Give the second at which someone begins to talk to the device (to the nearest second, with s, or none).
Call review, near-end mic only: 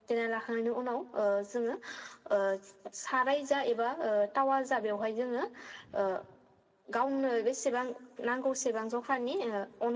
none